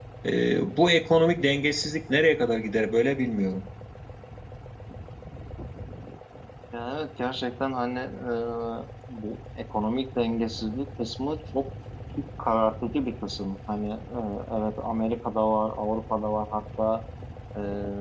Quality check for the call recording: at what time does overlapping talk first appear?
none

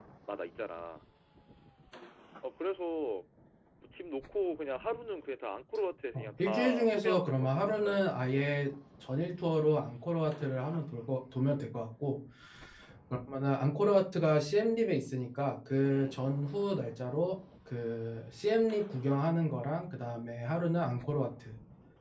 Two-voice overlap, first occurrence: 6 s

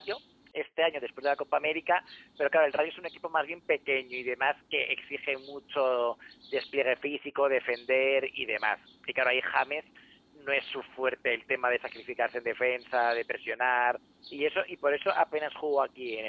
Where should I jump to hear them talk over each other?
none

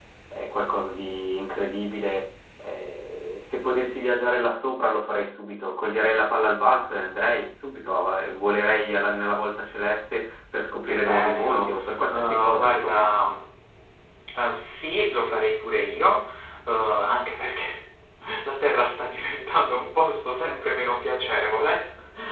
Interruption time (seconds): 11 s

